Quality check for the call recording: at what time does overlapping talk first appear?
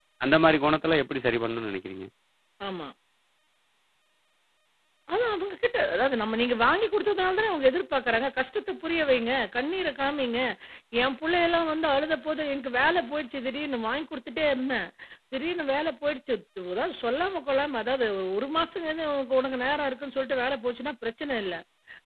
none

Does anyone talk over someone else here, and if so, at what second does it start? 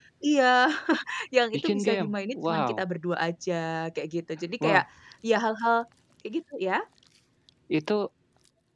1.5 s

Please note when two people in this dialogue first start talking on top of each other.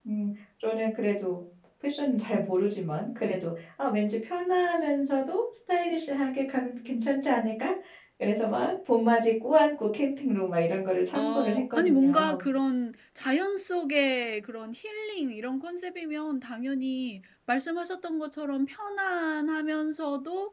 11.1 s

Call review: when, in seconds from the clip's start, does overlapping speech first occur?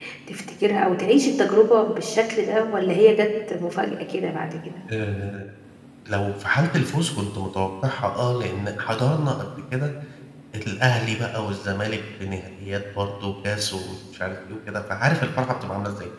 none

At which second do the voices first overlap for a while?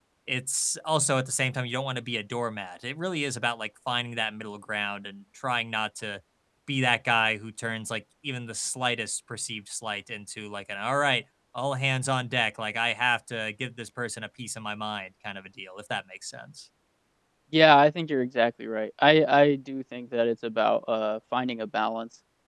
none

